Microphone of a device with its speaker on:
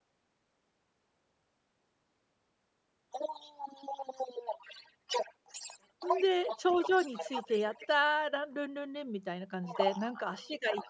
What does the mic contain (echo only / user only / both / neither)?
both